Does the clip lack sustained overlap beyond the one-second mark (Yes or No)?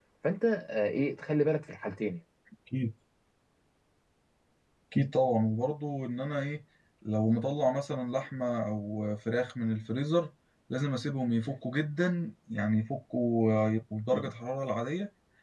Yes